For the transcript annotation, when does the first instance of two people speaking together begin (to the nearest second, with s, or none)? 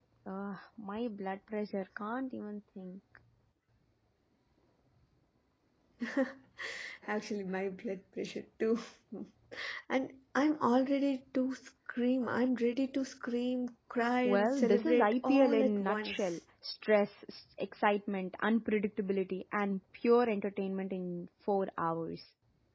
14 s